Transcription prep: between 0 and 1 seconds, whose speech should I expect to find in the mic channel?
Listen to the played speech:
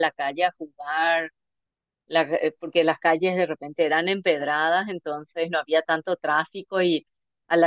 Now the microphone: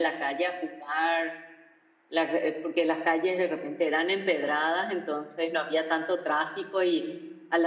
echo only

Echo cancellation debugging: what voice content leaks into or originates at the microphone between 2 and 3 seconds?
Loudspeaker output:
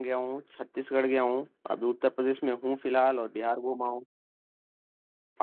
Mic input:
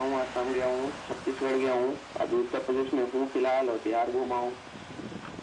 echo only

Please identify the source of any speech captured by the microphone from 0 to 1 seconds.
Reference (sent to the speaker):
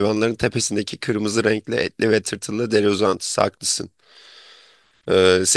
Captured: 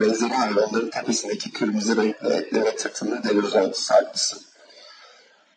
echo only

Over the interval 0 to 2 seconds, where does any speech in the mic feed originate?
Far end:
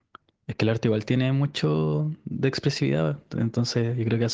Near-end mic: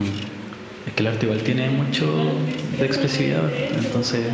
both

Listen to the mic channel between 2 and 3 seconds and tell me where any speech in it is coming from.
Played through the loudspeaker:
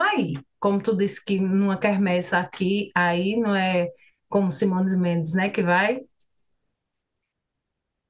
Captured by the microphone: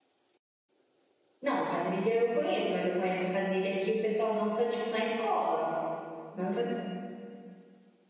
user only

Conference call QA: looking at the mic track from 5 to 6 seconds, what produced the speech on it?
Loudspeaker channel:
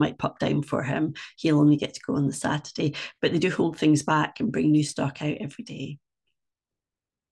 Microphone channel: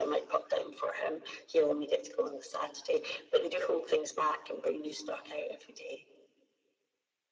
echo only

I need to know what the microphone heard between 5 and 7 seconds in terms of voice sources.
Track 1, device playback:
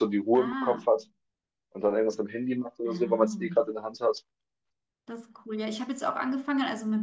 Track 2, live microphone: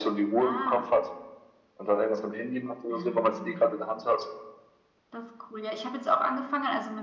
echo only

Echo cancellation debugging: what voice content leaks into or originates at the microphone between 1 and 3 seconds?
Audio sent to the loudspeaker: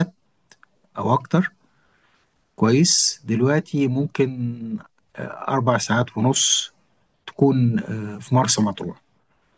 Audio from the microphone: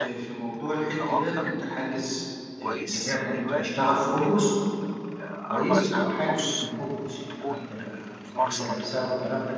both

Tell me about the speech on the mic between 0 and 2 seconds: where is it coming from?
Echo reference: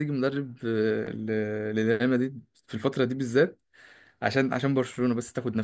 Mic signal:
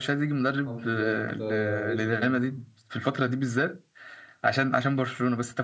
both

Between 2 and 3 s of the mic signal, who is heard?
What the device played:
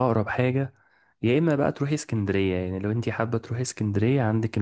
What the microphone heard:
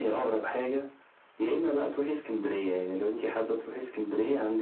echo only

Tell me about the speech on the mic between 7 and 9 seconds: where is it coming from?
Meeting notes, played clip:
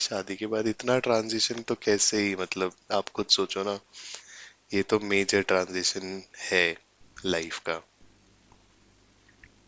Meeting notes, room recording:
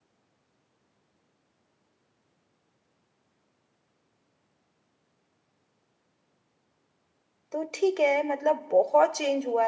user only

